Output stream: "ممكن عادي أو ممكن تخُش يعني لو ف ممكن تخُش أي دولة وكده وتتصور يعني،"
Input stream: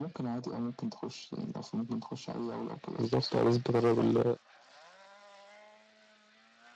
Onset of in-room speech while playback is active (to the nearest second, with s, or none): 3 s